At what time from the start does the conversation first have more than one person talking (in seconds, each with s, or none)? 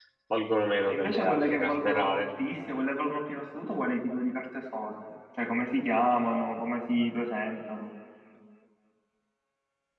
0.9 s